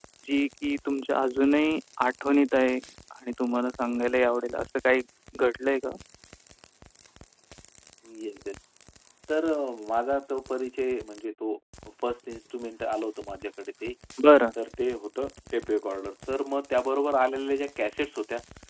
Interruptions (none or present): none